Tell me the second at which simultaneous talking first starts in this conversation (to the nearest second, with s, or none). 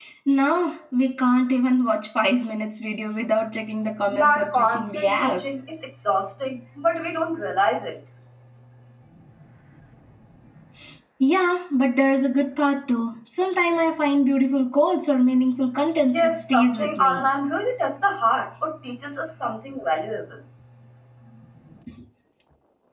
4 s